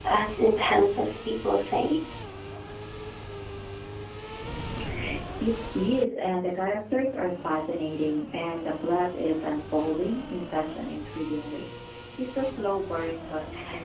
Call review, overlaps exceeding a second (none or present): none